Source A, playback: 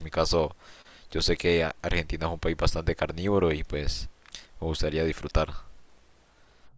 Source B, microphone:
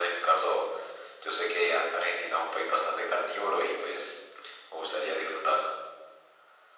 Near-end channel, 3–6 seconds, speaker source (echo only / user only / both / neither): echo only